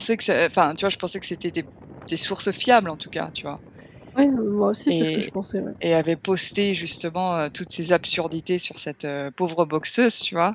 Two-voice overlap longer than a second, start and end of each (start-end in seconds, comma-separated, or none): none